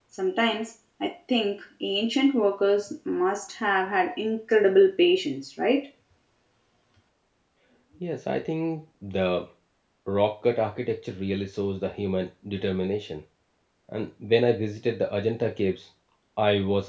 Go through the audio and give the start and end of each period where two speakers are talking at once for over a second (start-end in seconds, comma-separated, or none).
none